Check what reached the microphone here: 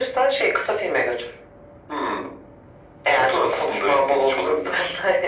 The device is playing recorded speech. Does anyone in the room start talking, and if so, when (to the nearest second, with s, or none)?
none